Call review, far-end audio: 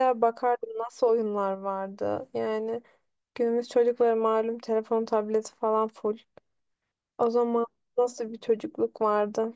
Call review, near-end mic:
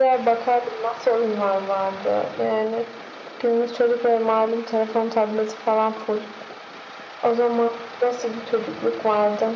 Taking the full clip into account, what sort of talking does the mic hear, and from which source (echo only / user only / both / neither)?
echo only